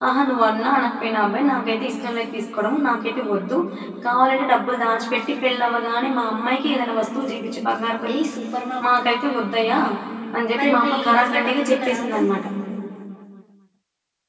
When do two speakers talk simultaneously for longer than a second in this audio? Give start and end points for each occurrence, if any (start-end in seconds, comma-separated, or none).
10.6-12.2